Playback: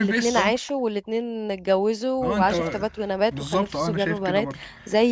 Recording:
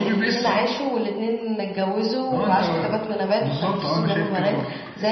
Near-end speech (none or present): none